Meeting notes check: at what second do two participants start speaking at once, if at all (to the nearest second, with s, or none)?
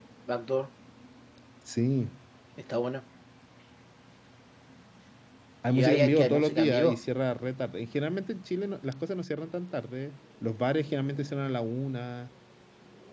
6 s